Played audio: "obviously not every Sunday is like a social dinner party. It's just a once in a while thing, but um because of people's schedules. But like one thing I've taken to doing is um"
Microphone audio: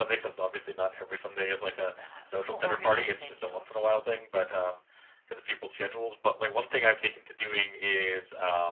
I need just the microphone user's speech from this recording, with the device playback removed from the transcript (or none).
uh, more organized. I feel.